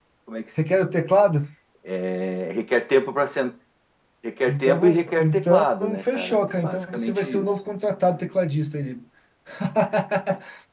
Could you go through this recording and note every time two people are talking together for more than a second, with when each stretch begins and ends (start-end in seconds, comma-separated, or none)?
4.5-7.6